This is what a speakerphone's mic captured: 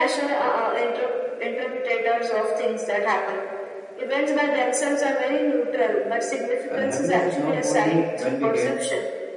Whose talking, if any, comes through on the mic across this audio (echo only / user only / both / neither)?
both